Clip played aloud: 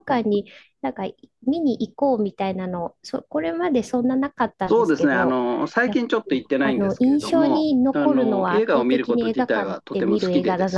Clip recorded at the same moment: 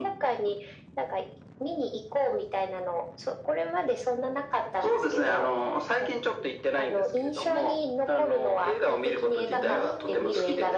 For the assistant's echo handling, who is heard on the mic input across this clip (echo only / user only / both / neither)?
both